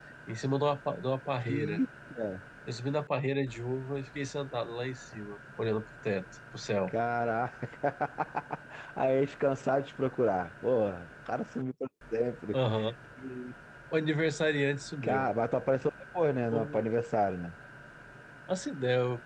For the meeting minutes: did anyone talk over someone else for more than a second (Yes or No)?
No